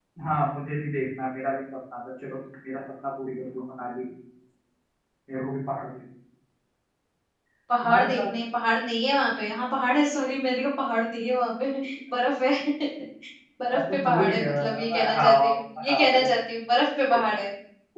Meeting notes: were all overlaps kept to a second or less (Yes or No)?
No